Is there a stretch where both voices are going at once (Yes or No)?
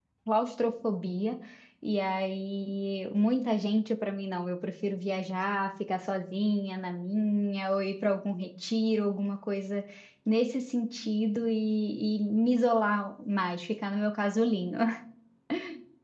No